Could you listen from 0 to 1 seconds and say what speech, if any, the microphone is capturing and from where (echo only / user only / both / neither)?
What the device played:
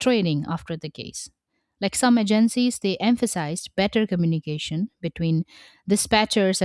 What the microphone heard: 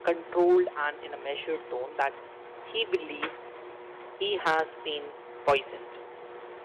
user only